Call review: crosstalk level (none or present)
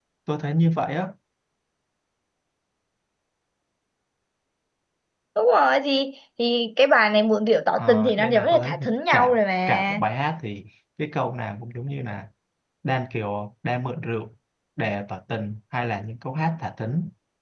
present